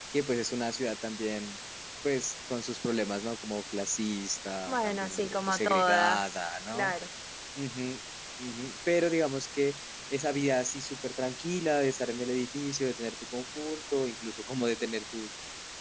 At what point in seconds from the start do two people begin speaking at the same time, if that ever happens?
4.7 s

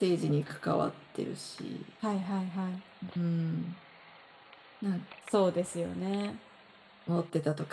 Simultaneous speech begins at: none

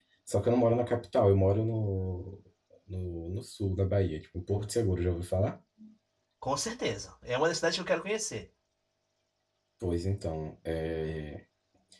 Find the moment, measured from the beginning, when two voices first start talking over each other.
none

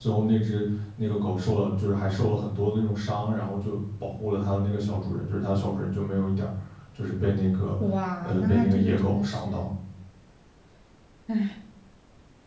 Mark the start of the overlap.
8.2 s

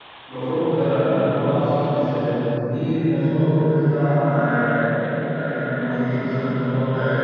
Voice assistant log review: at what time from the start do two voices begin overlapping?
none

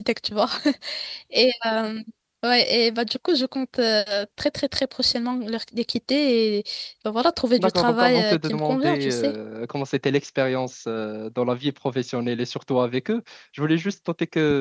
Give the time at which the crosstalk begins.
7.6 s

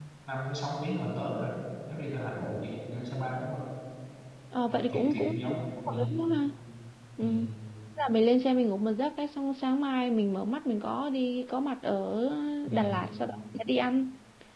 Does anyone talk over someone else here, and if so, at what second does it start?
4.7 s

